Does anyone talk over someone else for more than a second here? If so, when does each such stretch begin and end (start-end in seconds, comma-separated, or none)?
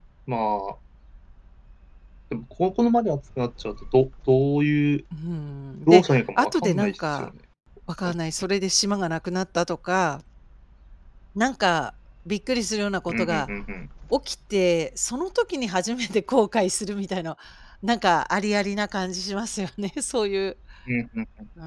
5.9-7.3